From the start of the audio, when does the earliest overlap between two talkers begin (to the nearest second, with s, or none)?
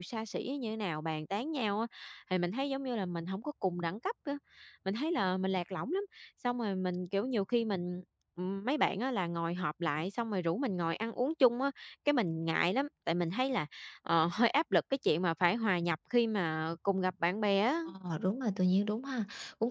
none